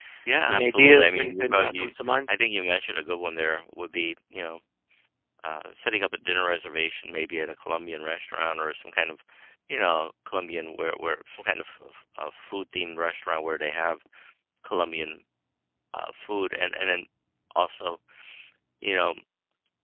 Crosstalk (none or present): present